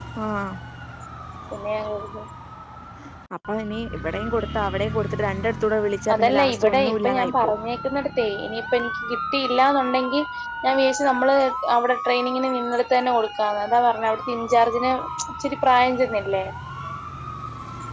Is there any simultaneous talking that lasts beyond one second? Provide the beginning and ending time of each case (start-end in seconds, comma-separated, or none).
6.1-7.5